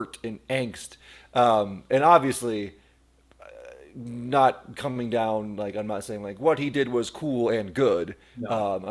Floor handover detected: No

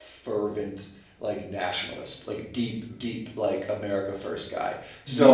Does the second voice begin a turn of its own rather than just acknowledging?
No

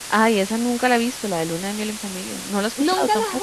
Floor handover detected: Yes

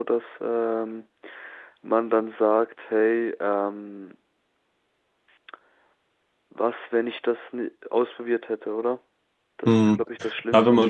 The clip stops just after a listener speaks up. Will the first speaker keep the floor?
No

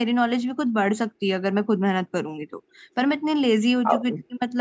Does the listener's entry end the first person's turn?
No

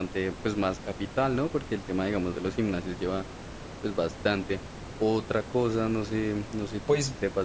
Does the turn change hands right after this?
No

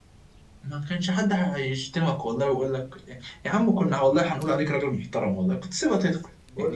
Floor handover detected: Yes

